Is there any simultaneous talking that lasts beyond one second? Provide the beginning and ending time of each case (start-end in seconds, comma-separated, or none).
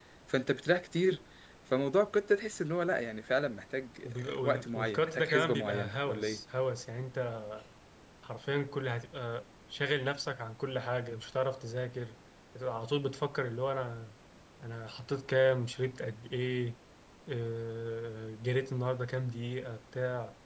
4.0-6.4